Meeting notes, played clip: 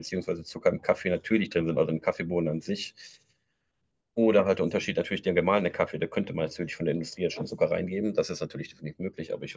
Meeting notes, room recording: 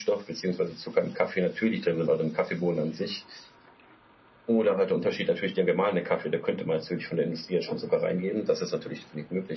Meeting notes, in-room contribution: none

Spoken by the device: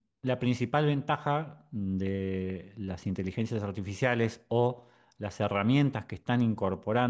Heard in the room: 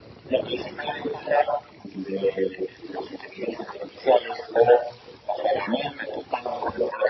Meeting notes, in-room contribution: none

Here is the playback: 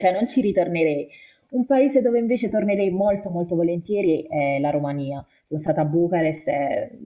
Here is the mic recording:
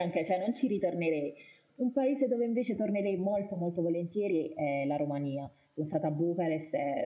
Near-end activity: none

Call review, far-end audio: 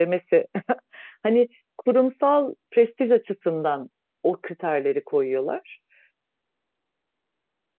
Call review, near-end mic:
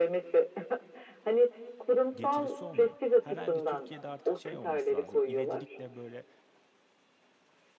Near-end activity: present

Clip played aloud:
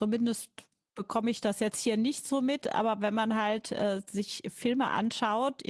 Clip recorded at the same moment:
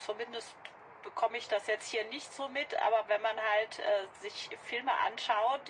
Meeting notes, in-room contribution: none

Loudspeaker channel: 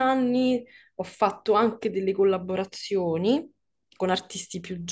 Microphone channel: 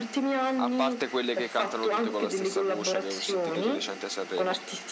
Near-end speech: present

